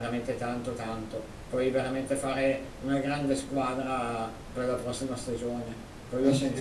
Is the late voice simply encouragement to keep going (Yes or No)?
No